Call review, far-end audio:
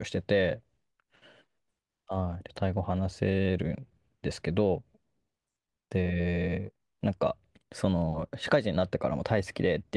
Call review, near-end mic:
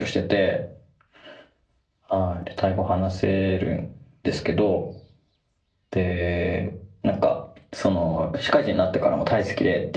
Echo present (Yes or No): Yes